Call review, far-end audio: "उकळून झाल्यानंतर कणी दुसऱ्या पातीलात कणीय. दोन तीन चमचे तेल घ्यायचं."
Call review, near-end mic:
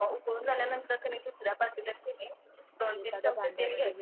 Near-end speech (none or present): present